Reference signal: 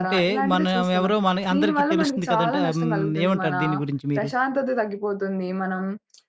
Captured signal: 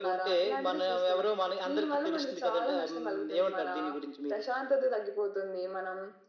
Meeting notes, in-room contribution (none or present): none